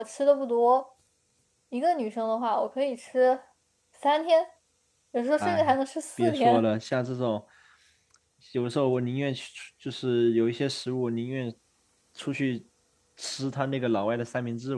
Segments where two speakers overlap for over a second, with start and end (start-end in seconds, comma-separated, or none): none